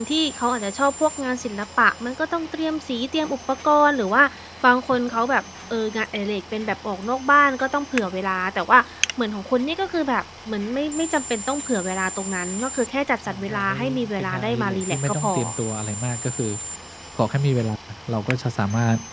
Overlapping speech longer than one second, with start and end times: 13.3-15.3

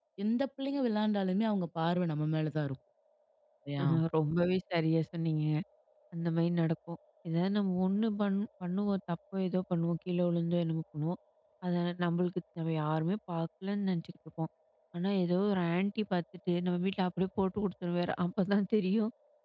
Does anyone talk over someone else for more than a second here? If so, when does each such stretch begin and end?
none

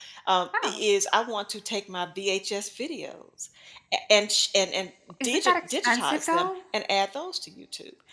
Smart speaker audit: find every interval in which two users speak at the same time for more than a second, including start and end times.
5.2-6.5

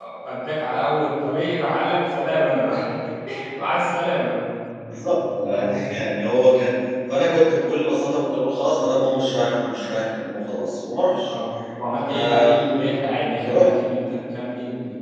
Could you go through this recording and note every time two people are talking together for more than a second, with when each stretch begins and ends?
none

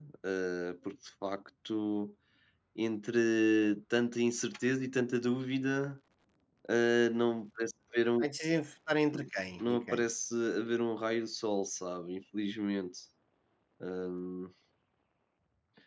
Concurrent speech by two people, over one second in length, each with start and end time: none

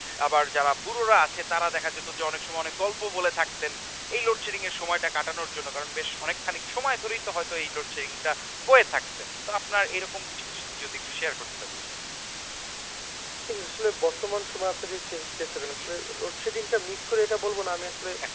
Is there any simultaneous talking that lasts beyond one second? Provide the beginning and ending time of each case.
none

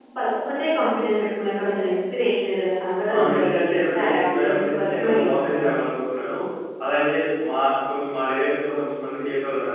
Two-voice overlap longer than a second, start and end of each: 3.1-5.7

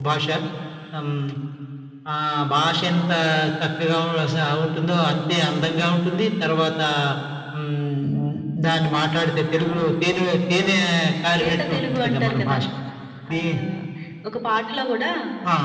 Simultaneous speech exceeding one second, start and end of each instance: 11.4-12.6

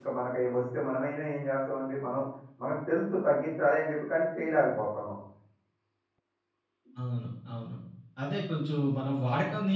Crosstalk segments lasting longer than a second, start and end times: none

